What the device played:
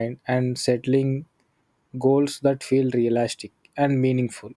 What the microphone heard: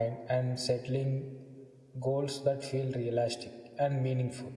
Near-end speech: none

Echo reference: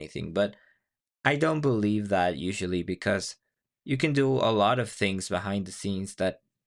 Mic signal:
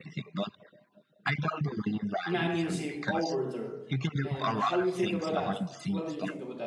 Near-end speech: present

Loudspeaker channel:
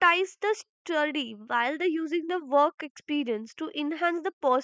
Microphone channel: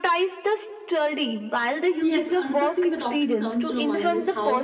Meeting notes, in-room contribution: present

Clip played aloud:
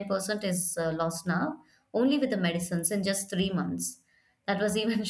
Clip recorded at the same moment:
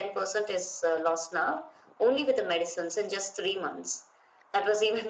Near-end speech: none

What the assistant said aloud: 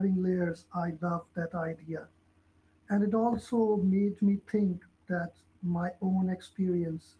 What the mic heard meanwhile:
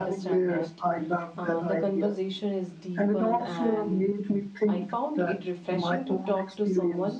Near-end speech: present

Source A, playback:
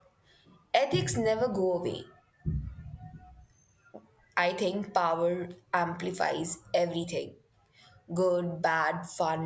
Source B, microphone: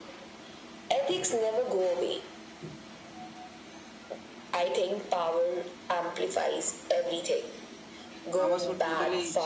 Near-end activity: present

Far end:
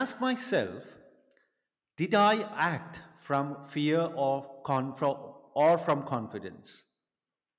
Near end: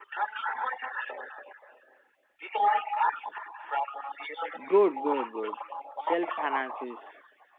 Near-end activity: present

